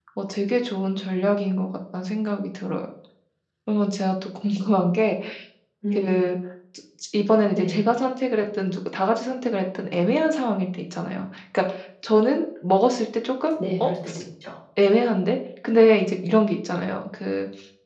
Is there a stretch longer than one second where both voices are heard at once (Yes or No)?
No